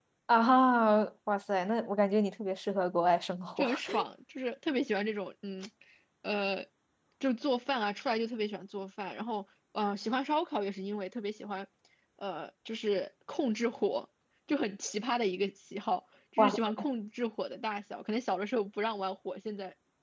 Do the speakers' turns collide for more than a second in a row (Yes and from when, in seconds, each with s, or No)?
No